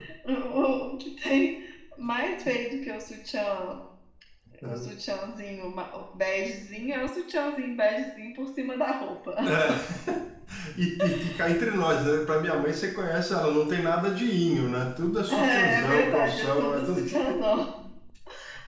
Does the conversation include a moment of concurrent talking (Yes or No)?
Yes